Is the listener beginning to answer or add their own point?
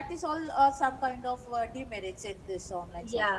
Yes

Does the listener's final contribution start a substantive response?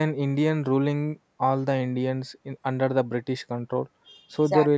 No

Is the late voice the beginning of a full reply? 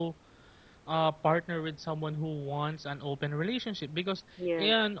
No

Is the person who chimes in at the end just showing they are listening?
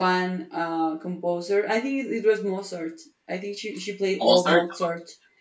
Yes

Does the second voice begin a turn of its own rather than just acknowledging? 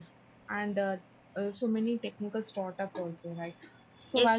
Yes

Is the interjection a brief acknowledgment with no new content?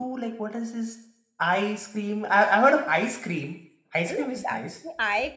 No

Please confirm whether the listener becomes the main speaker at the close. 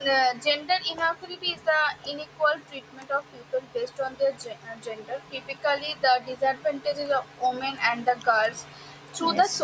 No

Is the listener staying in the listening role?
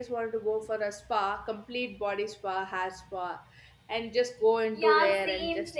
No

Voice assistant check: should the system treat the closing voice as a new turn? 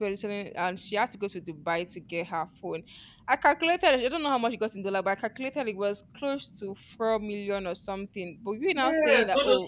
Yes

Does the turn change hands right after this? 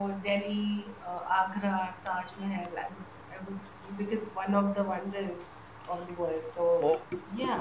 Yes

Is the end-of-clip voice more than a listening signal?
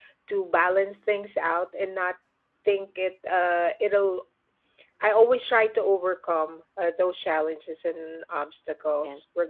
No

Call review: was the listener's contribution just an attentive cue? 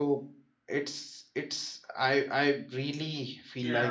Yes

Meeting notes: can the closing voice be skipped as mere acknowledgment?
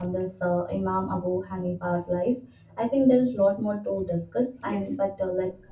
Yes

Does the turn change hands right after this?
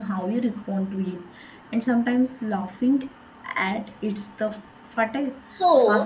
Yes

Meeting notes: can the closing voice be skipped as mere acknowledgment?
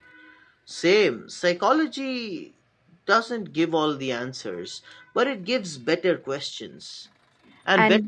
Yes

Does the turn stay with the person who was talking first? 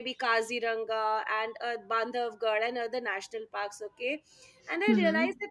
Yes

